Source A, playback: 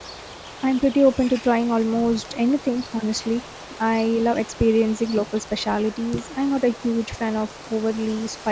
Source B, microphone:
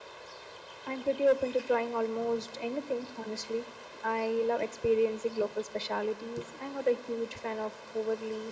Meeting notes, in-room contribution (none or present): none